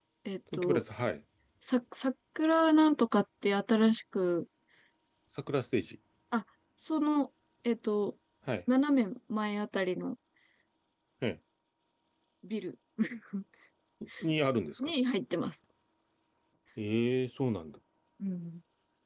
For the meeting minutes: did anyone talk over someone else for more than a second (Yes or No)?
No